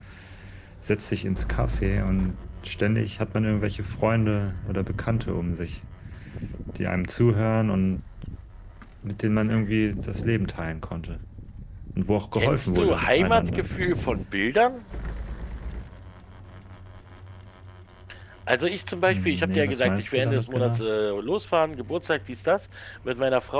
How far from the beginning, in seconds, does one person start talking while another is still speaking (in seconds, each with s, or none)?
12.3 s